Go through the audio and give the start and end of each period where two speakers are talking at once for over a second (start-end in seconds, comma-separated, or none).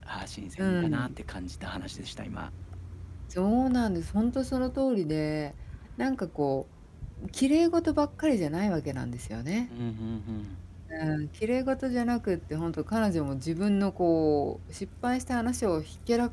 none